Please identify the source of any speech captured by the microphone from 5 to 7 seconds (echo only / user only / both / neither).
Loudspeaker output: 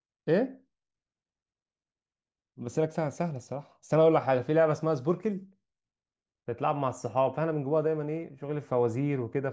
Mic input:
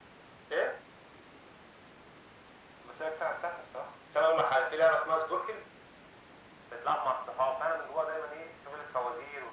echo only